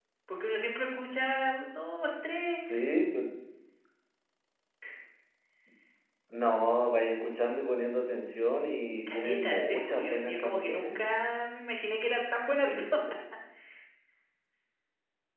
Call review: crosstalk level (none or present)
present